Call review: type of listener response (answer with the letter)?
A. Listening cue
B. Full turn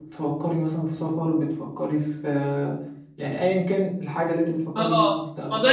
B